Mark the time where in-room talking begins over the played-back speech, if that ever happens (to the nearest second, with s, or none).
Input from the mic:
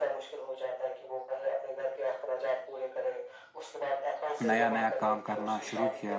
4 s